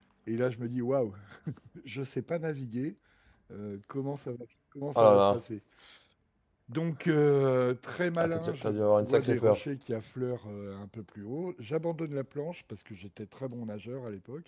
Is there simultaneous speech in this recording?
Yes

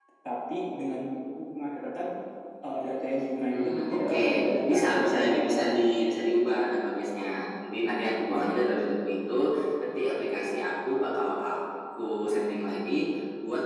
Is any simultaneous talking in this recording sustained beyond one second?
Yes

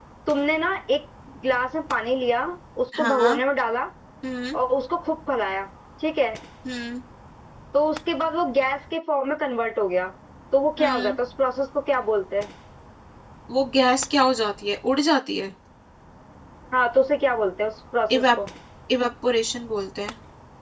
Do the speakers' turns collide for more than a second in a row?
No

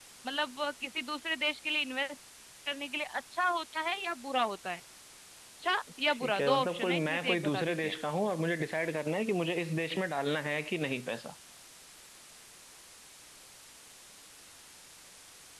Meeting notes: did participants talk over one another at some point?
Yes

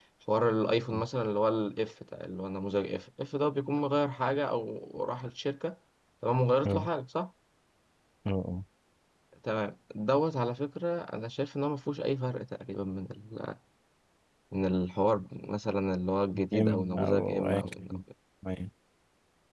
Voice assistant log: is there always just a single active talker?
No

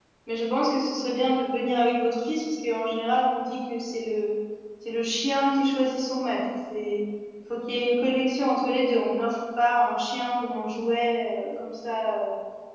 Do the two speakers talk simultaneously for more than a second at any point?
No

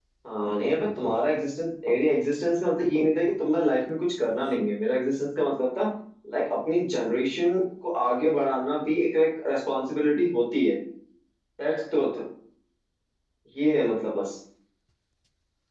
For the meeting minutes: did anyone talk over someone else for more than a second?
No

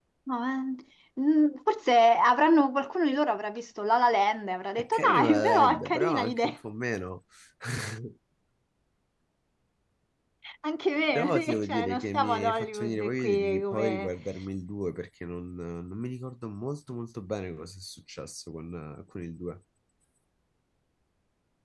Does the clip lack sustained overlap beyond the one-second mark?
No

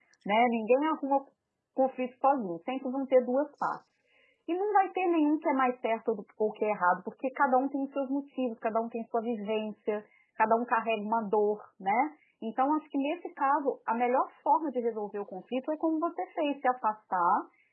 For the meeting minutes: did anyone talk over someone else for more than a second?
No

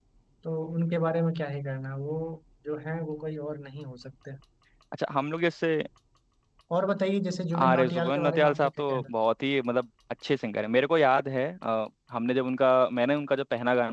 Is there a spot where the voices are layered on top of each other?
Yes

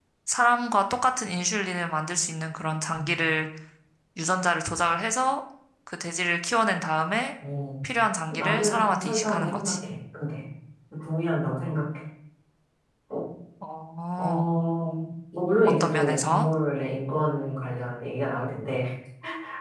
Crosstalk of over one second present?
Yes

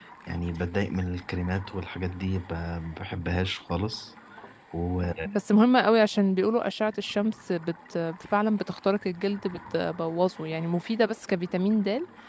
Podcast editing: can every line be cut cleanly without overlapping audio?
Yes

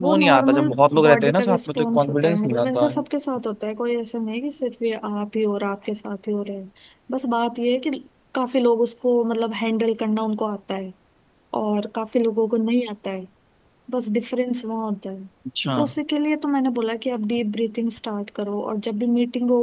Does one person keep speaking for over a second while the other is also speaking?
Yes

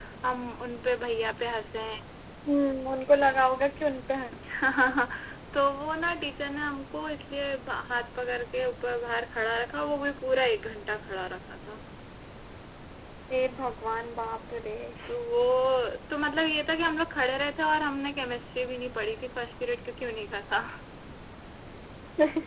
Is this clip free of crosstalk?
Yes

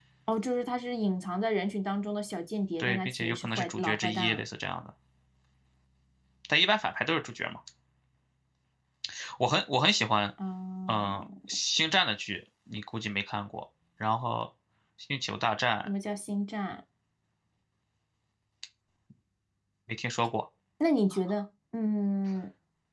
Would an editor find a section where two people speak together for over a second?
Yes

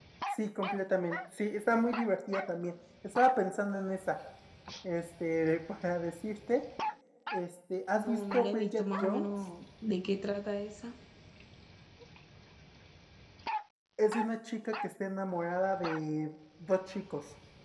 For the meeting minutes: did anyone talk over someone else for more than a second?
Yes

